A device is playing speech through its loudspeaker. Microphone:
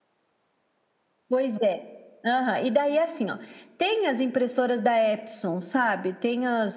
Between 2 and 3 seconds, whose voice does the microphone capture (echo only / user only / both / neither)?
echo only